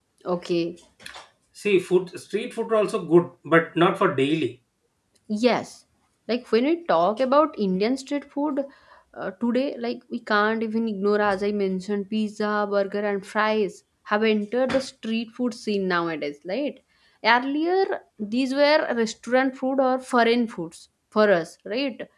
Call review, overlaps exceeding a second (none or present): none